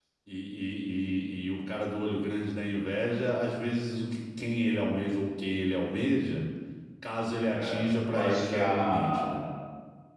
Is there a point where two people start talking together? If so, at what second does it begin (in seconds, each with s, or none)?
7.5 s